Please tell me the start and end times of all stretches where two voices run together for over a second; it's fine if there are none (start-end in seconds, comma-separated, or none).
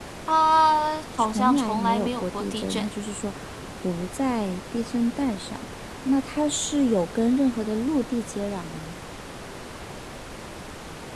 1.2-2.9